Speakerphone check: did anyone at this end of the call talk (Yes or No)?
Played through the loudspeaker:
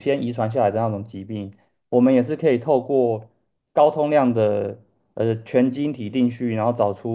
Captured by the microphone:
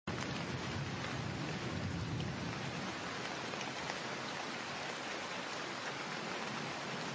No